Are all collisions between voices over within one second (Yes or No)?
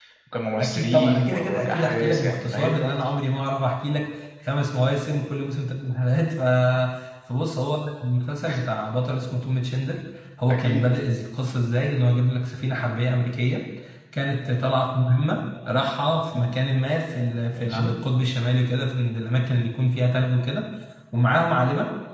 No